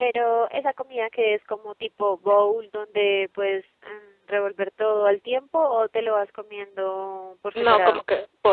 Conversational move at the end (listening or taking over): taking over